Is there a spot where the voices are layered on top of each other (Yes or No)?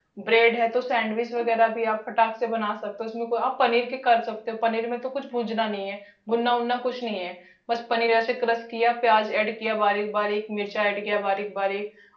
No